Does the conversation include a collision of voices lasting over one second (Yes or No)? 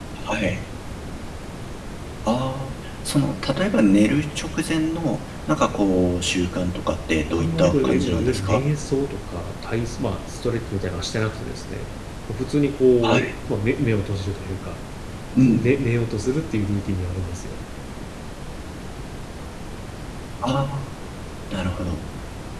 Yes